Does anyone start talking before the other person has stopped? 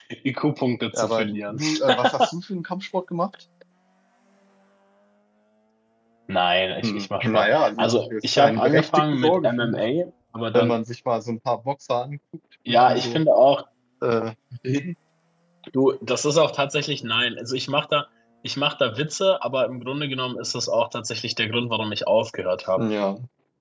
Yes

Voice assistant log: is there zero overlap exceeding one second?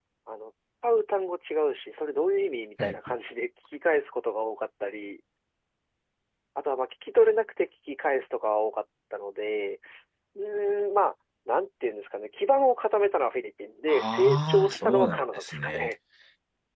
No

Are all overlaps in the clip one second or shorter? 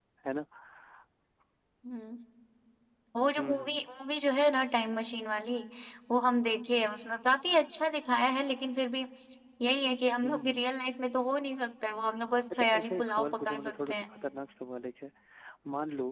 No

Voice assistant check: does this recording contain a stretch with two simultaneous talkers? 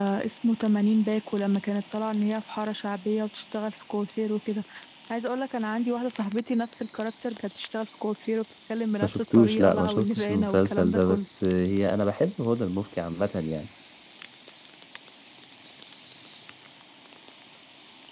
Yes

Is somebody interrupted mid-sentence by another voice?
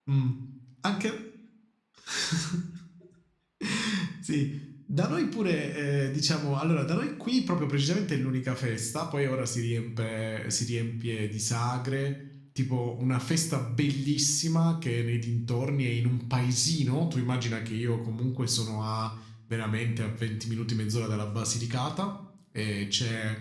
No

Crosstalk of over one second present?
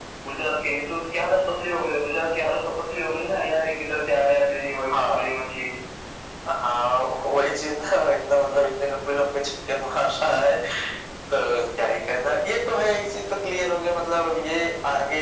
No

